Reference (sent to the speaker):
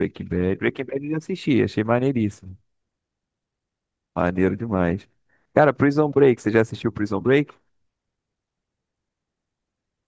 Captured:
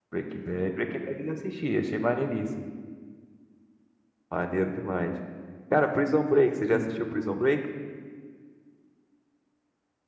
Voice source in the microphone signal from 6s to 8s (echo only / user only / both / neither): both